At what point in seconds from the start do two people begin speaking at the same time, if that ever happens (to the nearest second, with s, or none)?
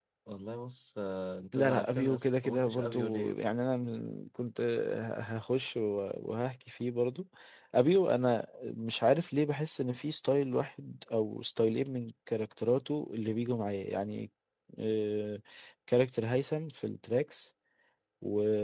2 s